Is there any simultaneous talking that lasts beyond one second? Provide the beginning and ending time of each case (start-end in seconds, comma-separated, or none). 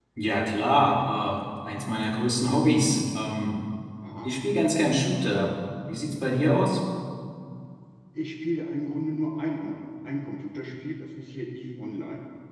none